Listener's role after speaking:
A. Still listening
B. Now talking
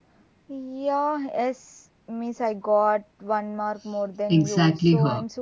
B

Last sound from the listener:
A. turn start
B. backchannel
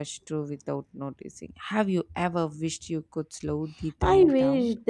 A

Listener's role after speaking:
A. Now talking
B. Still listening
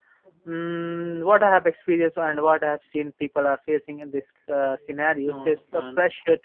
B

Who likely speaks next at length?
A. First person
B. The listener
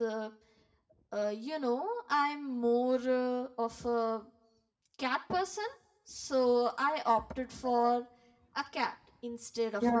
B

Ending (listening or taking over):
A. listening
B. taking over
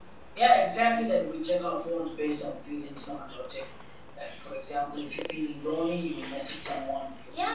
A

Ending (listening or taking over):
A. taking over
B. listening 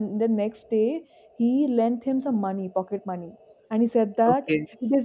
B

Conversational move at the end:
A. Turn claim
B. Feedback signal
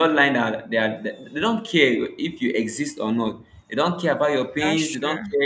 B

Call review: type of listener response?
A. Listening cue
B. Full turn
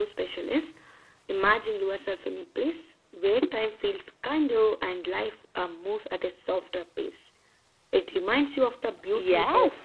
B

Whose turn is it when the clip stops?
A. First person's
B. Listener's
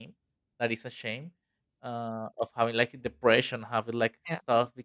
A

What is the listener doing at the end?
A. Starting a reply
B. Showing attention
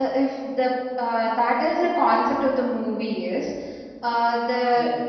B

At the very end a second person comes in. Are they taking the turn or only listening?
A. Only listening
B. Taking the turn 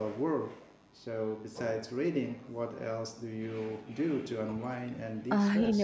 B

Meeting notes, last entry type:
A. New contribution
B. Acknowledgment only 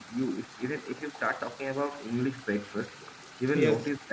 B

